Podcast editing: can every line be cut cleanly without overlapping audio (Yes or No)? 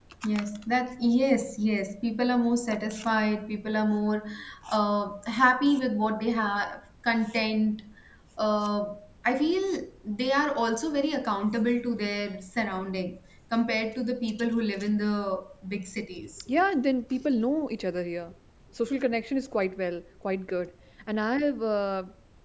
Yes